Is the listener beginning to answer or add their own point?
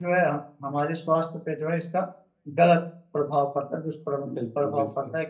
Yes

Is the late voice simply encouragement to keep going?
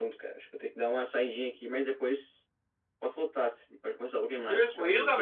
No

